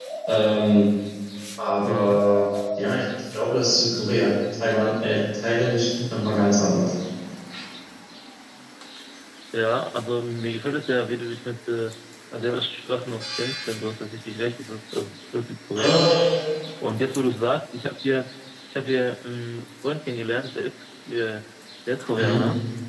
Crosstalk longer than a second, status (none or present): none